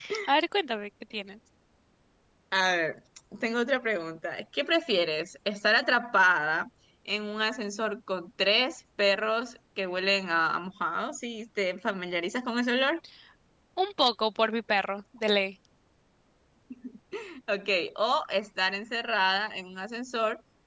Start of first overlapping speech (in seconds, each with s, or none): none